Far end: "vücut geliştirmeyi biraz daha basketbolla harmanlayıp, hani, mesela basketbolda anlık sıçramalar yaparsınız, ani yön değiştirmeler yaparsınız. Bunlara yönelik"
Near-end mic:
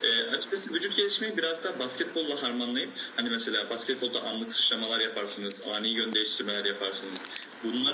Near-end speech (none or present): none